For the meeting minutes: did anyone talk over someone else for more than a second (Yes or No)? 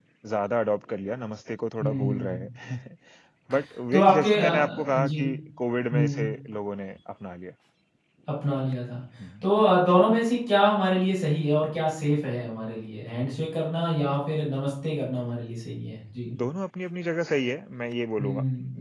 Yes